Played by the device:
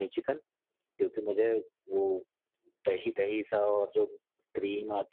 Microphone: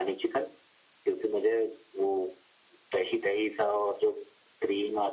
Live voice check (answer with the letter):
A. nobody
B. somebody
A